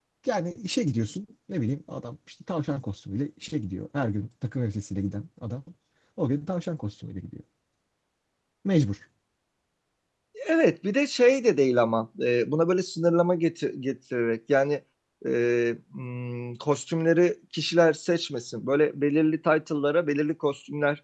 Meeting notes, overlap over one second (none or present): none